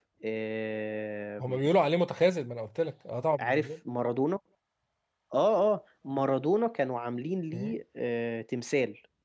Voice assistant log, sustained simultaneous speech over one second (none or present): none